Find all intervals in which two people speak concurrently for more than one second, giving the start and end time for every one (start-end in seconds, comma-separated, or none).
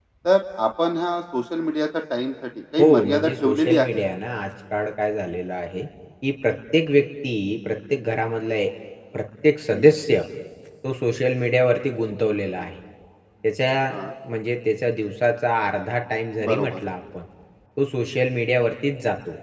2.8-4.0